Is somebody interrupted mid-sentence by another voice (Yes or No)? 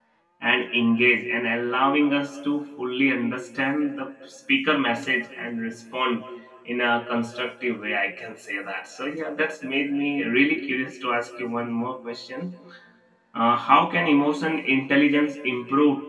No